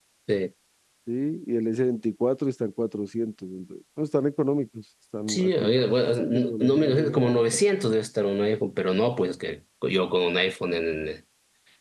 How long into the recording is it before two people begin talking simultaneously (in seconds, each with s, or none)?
5.3 s